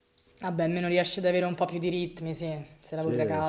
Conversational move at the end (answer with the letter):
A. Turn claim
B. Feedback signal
A